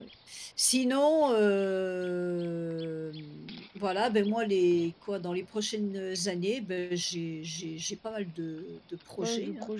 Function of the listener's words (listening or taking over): taking over